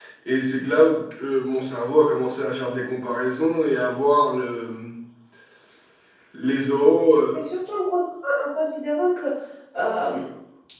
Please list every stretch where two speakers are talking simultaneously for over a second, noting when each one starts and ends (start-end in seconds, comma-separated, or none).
none